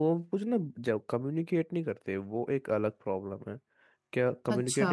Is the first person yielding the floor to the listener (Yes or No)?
No